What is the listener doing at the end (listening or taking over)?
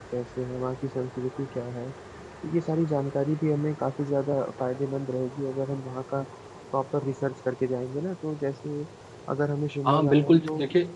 taking over